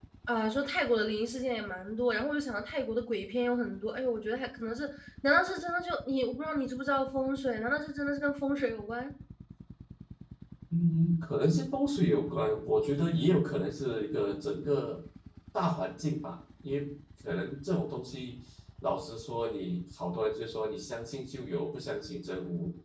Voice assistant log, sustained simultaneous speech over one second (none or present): none